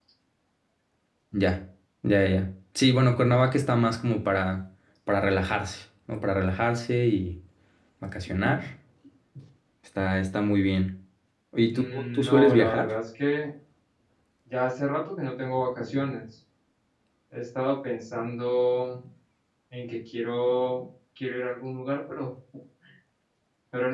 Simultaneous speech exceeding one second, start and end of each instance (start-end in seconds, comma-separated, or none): 11.7-13.0